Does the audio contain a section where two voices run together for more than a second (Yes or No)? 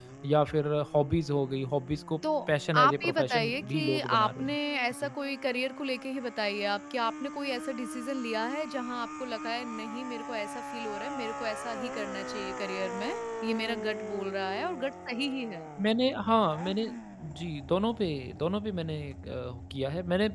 Yes